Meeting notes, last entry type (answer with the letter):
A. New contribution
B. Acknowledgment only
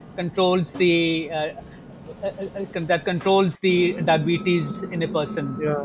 A